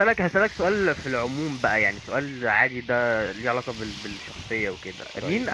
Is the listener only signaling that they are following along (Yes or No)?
Yes